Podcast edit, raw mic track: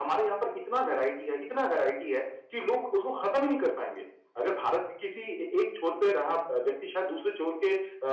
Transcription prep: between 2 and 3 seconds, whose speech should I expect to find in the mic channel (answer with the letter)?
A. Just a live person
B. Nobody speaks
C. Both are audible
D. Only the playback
D